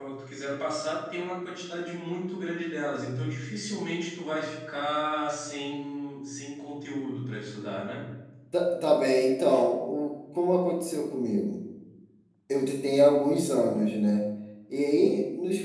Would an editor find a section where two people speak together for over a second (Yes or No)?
No